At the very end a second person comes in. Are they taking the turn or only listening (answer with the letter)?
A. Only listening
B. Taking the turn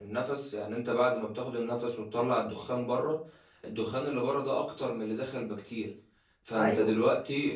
A